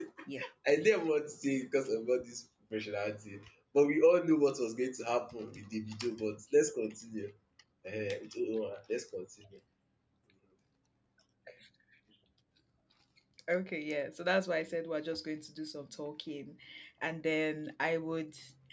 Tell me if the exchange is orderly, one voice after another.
Yes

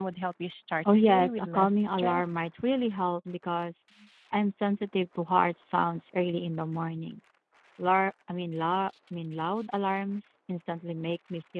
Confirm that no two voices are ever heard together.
No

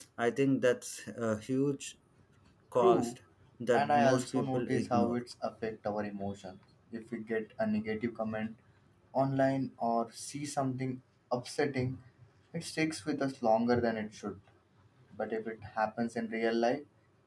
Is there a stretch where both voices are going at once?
Yes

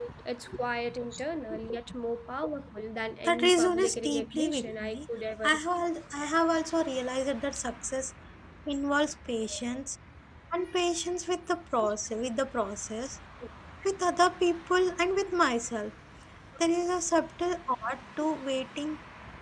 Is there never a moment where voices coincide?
No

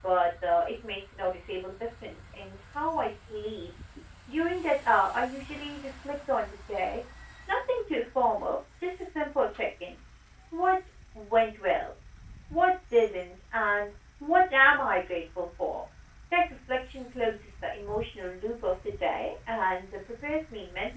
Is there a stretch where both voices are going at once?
No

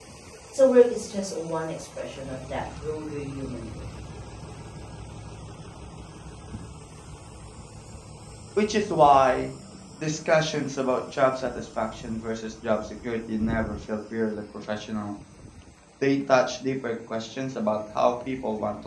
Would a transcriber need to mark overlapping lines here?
No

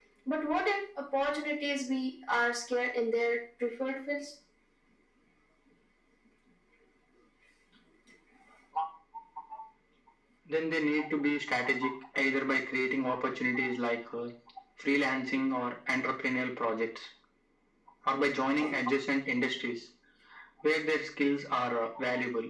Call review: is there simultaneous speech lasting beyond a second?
No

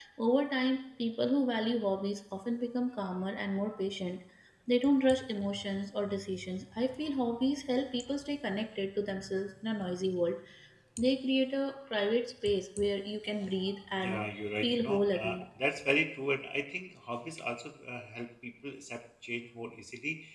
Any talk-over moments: Yes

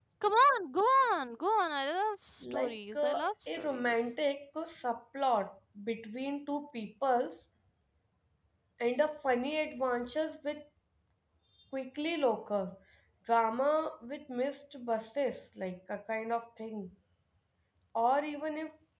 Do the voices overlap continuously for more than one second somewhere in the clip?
Yes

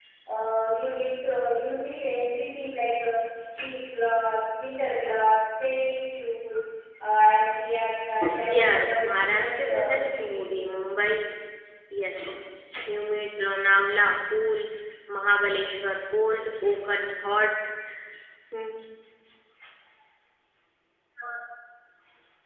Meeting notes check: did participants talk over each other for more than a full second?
Yes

